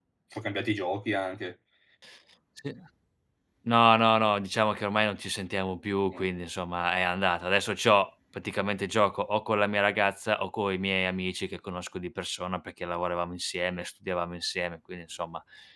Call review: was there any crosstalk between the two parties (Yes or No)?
No